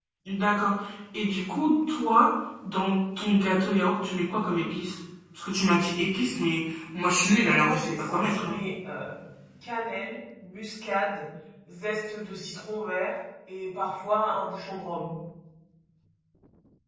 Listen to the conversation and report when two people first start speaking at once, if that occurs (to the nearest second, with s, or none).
7 s